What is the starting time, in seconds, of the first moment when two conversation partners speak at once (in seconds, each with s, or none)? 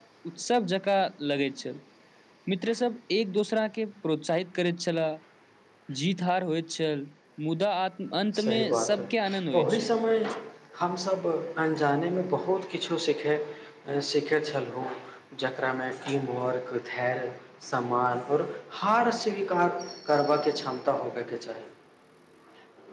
8.3 s